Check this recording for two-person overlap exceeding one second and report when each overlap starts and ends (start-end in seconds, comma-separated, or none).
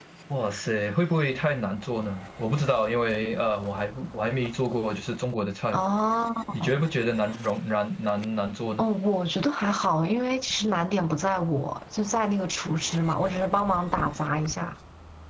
none